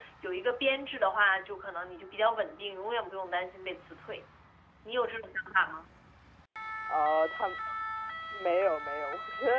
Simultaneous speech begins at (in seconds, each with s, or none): none